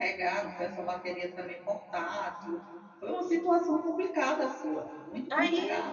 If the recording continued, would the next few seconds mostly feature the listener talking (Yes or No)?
Yes